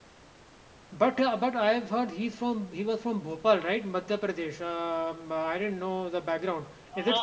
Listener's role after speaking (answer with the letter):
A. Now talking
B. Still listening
A